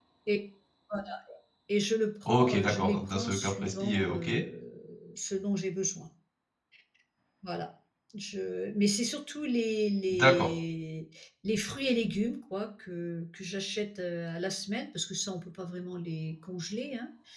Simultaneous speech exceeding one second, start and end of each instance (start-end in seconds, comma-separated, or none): 2.3-4.3